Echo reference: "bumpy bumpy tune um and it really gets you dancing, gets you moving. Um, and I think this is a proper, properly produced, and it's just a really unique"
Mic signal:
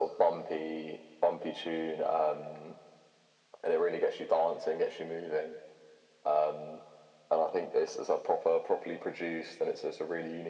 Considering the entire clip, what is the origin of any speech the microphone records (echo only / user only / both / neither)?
echo only